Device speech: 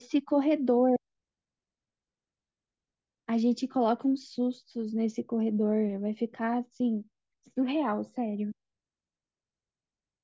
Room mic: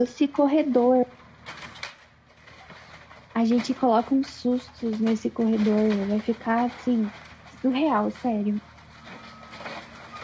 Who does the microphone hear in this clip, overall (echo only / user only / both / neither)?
echo only